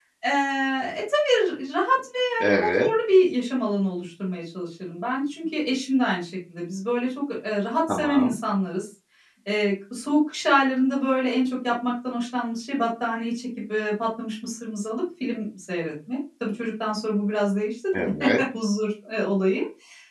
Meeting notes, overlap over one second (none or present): none